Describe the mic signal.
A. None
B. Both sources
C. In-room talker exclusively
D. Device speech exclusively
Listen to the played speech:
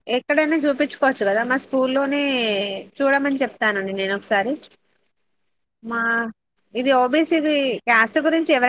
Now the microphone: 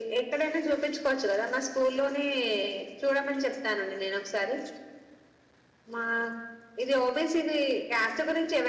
D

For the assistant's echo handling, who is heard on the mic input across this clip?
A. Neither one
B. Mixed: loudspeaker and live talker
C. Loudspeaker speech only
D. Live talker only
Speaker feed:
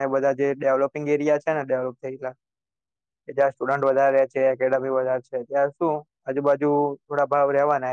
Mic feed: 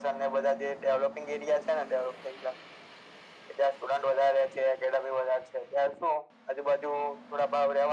C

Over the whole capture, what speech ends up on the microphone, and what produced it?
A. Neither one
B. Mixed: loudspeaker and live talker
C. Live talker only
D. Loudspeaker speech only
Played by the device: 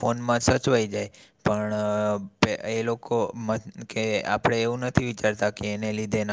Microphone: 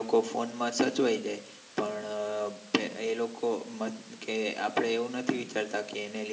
D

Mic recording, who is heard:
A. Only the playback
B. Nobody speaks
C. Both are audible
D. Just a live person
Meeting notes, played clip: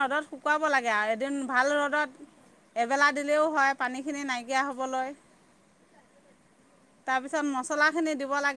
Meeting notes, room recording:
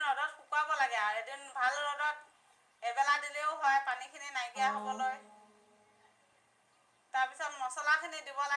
C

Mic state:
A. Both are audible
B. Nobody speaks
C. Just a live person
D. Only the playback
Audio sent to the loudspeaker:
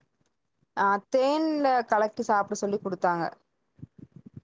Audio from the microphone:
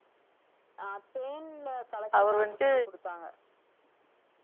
A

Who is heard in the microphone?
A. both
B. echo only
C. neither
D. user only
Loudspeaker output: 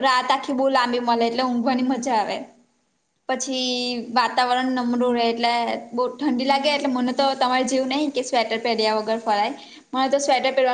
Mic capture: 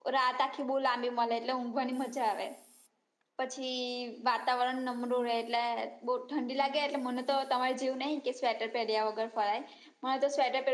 B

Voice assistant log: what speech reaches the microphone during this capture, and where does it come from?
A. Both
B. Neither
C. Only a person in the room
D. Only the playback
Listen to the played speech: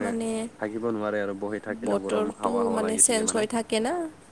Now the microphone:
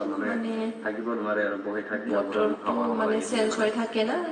D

